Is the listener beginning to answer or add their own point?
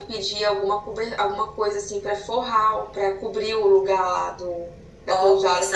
Yes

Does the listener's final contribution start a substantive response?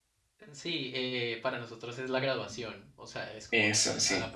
No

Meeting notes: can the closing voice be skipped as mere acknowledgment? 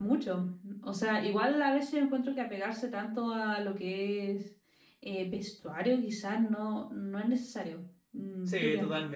No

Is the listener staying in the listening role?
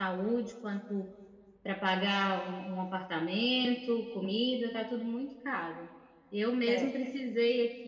Yes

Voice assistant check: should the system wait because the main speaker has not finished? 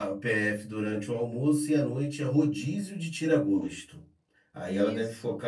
Yes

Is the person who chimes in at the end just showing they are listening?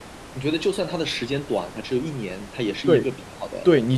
No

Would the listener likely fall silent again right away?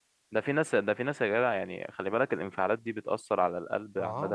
No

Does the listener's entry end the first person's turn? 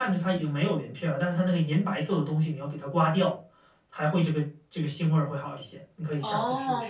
Yes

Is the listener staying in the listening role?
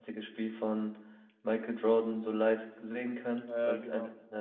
Yes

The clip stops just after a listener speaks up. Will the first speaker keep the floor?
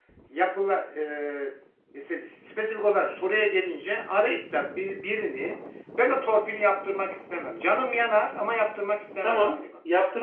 No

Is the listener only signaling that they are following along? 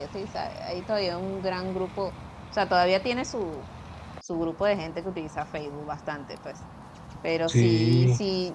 Yes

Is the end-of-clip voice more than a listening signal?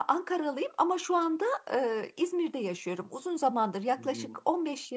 No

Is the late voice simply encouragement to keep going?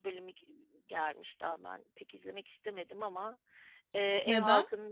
Yes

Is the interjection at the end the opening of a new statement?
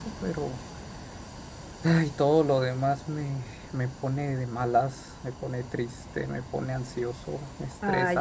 Yes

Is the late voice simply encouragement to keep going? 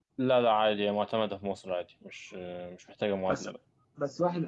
No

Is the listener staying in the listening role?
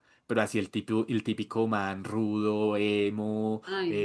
Yes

